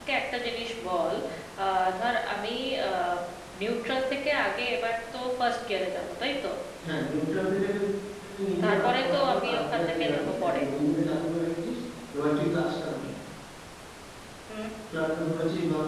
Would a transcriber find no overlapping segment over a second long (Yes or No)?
No